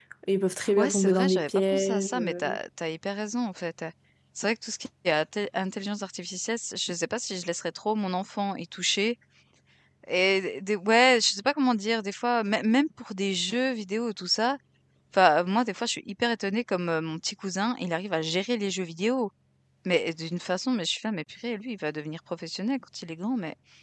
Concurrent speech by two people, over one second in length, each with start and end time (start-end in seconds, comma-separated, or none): 0.8-2.6